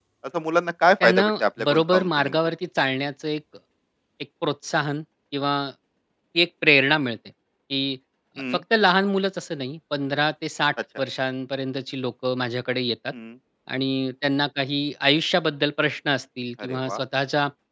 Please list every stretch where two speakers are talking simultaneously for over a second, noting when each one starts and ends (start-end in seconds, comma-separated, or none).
1.0-2.4